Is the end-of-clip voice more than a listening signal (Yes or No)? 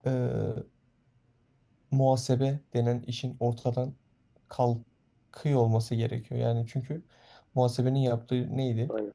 No